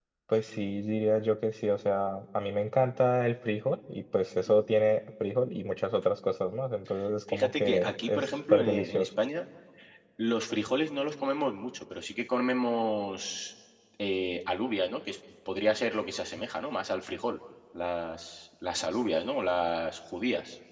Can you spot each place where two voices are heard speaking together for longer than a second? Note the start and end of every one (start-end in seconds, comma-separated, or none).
7.3-9.1